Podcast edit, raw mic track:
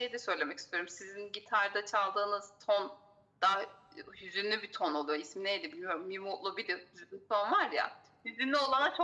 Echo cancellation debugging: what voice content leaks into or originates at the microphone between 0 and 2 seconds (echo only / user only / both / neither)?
echo only